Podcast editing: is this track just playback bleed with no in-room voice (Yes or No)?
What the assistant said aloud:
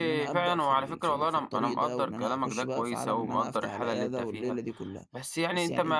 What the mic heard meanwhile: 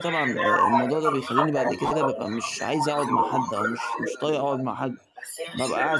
No